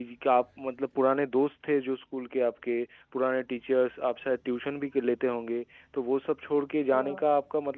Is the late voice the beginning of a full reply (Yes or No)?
No